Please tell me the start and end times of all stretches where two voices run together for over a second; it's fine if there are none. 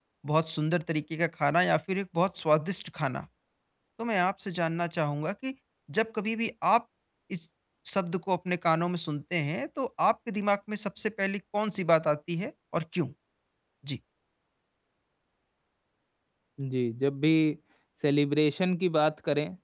none

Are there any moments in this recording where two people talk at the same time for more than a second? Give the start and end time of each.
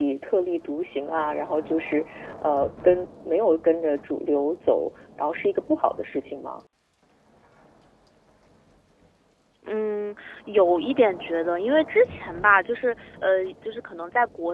none

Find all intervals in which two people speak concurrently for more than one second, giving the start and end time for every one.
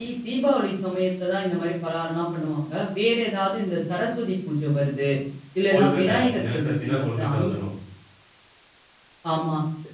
5.7-7.5

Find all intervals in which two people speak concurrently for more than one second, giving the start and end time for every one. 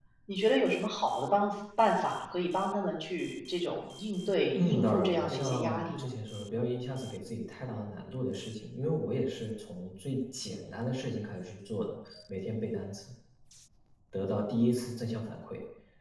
4.5-6.1

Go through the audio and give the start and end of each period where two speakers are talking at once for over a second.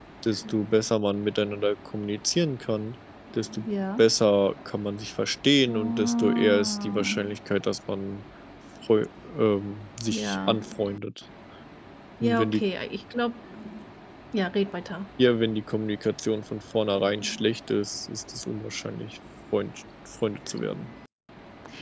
5.7-7.1

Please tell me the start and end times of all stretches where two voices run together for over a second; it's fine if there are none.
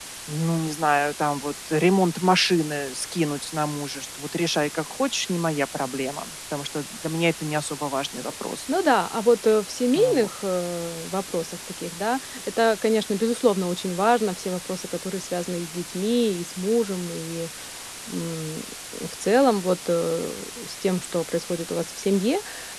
none

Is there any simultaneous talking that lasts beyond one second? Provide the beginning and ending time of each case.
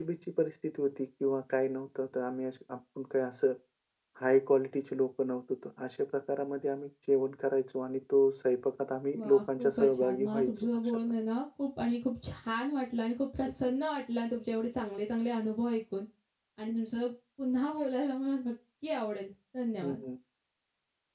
9.2-11.0

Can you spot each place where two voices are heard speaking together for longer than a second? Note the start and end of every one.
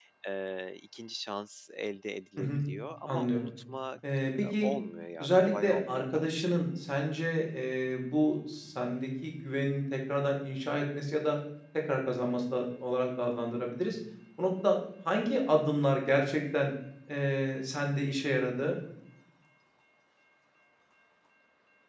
5.2-6.6

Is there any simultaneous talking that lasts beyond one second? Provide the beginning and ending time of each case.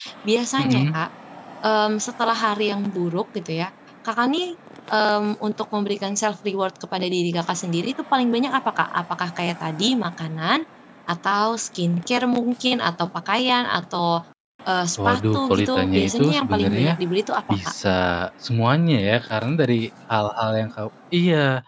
15.1-17.0

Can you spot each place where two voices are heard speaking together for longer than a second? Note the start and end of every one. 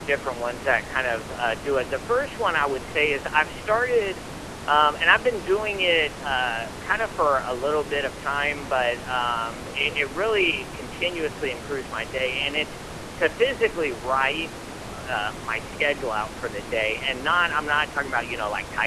none

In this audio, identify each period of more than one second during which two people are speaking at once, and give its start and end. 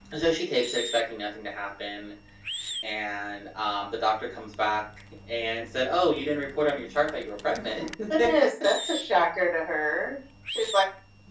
none

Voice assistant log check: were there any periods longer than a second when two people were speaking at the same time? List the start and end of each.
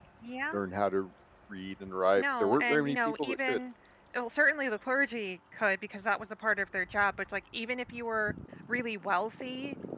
2.2-3.6

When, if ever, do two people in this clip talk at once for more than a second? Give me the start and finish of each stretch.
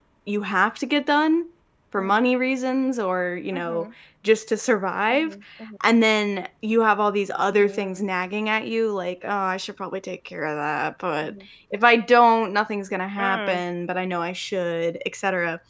none

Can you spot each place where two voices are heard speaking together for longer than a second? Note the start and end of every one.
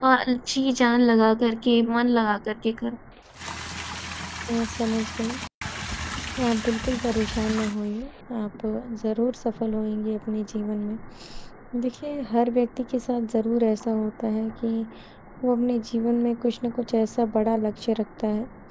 none

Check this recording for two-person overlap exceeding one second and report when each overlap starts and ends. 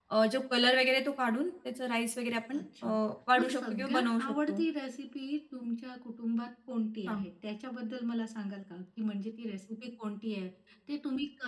3.4-4.6

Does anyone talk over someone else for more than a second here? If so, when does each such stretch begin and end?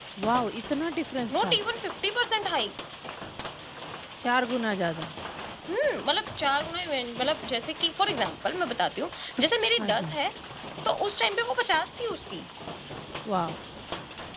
none

